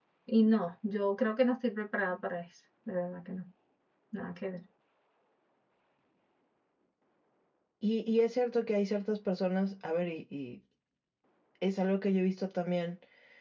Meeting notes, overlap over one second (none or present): none